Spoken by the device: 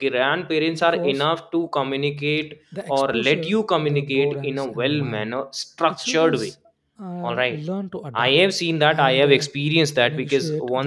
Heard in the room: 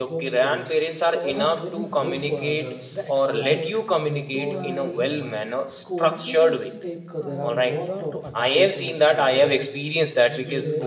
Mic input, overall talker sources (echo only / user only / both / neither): both